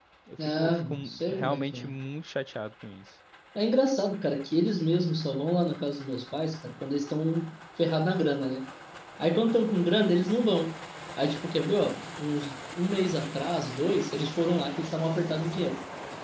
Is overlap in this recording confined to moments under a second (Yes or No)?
No